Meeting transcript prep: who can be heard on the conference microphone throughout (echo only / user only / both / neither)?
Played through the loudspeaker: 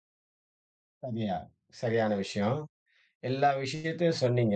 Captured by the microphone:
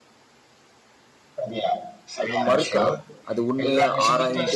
both